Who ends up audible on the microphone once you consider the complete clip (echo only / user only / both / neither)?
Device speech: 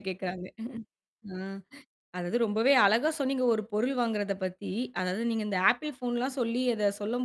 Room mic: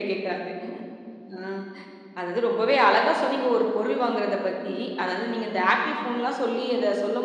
echo only